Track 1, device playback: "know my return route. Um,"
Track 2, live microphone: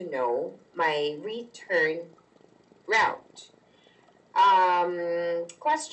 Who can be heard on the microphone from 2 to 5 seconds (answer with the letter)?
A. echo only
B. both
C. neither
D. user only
A